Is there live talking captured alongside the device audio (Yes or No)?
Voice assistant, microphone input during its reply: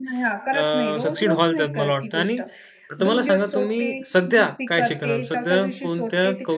Yes